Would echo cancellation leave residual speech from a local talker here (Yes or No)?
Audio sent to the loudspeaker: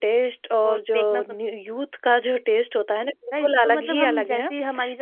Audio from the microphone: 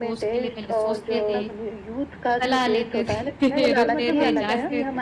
Yes